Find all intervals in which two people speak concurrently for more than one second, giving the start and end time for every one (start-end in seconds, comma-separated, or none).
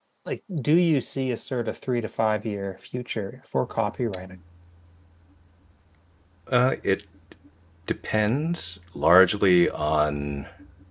none